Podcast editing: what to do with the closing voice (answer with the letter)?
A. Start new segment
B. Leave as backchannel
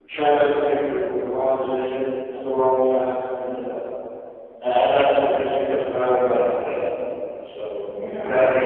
B